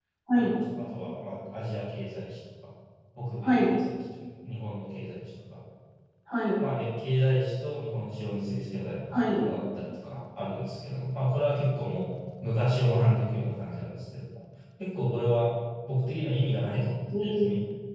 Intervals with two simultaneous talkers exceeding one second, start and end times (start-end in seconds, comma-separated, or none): none